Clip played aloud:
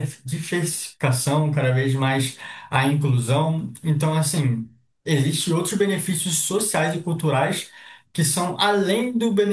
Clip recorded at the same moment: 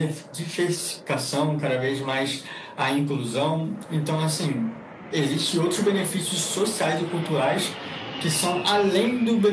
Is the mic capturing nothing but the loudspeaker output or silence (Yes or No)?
Yes